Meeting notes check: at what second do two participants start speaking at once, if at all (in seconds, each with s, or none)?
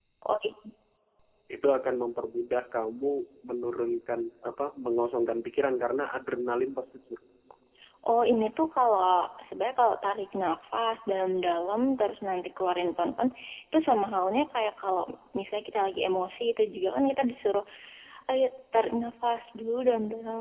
none